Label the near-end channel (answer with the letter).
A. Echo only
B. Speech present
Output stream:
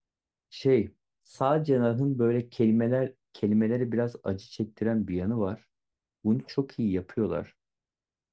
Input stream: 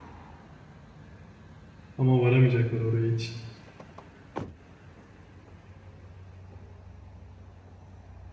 B